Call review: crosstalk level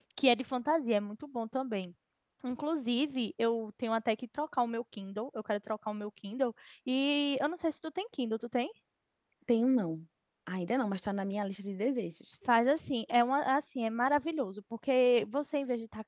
none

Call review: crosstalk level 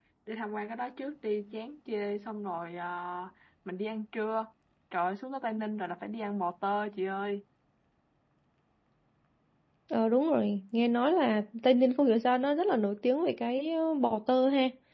none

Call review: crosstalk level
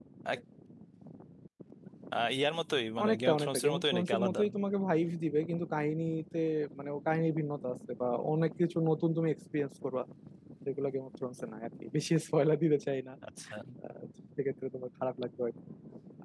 present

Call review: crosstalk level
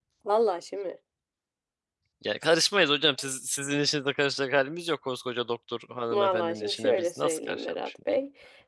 present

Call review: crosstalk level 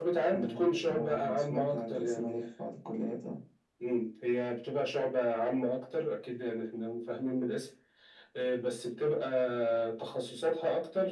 present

